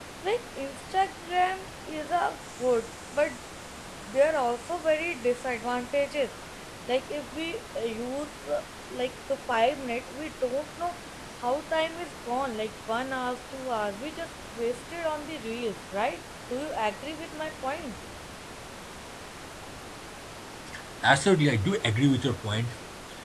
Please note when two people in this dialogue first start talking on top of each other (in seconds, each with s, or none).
none